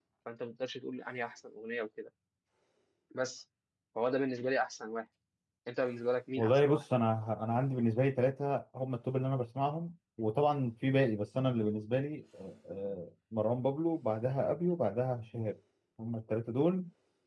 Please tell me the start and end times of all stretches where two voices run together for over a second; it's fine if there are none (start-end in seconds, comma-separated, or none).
none